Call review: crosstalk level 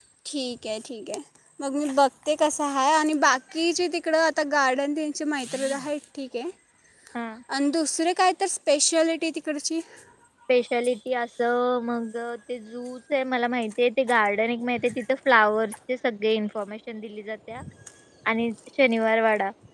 none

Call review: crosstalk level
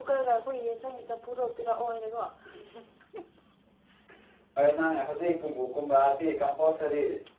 none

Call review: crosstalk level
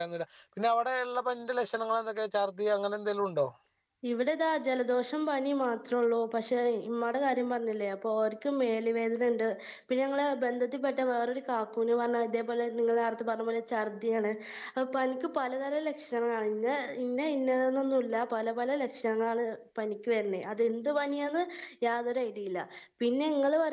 none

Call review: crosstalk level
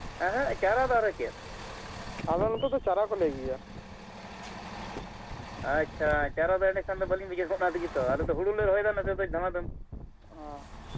none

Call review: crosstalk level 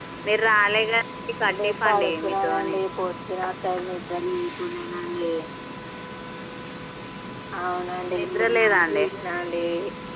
present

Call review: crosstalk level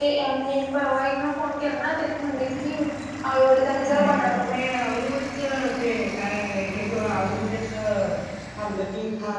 present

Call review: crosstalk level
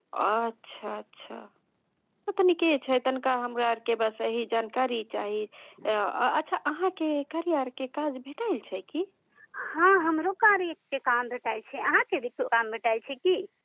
none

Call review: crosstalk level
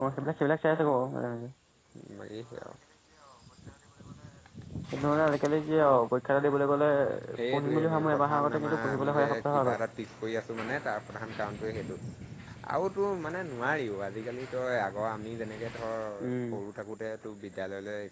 present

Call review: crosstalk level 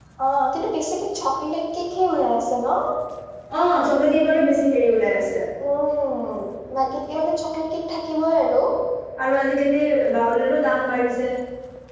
none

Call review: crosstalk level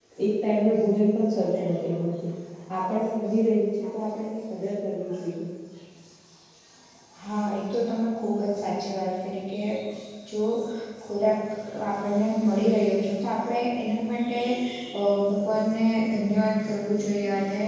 none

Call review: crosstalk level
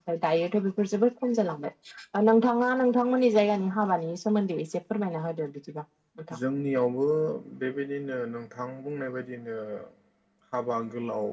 none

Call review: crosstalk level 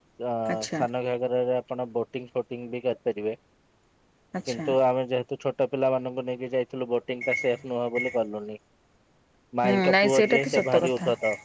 present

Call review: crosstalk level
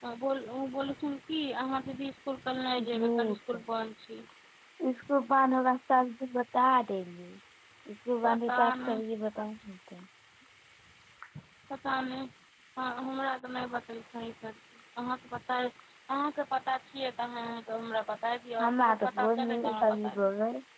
present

